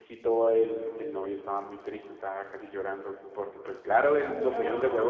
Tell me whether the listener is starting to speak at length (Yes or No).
No